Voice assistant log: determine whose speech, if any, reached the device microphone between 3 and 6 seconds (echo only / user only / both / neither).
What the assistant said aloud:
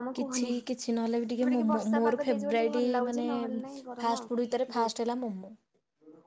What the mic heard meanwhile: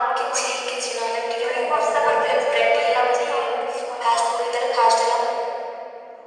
echo only